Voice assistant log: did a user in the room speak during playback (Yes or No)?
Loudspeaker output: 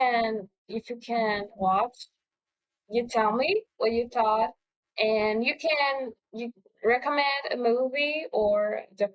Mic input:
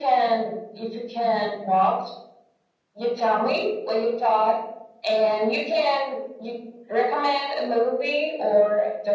No